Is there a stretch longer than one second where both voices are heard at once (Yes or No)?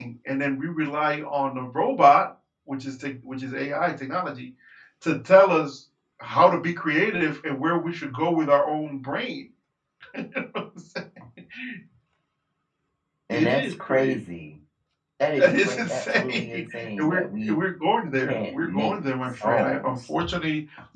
Yes